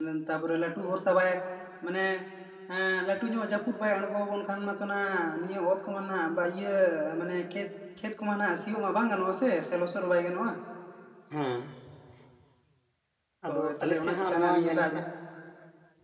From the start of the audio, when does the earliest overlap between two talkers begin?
13.5 s

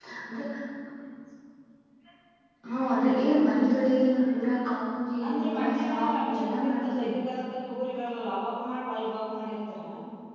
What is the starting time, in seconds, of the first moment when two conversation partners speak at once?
5.2 s

